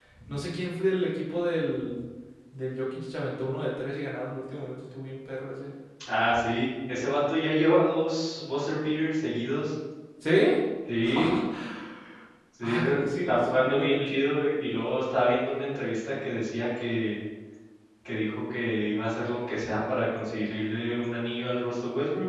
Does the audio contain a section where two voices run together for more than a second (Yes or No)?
Yes